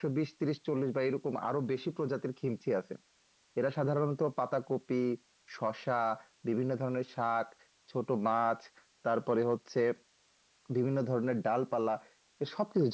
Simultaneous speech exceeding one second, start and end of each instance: none

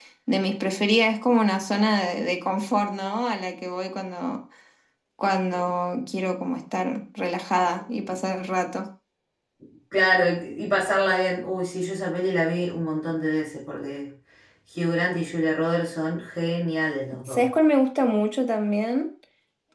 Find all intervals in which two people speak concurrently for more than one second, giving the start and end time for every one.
none

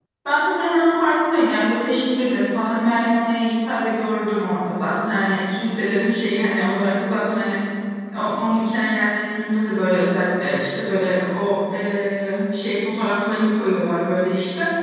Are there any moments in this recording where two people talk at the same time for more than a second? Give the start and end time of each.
none

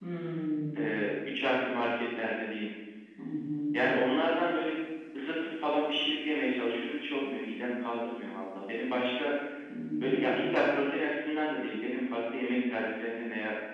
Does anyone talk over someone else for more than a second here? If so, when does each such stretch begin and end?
none

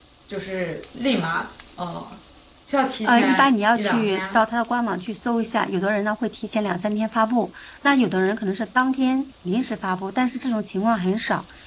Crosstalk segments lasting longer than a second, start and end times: 3.0-4.4

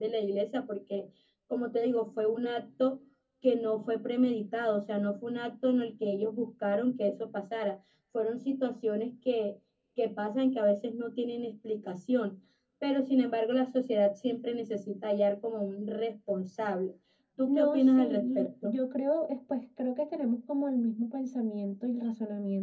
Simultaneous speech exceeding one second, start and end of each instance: 17.5-18.7

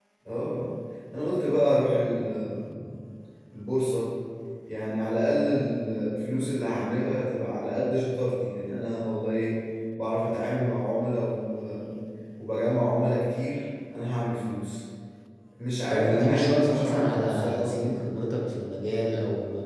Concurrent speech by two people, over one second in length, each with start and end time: 15.9-18.0

